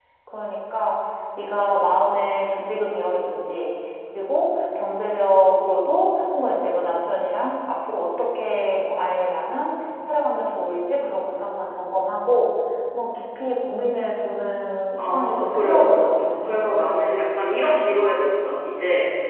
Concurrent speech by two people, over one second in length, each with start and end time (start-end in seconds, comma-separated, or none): 15.0-16.7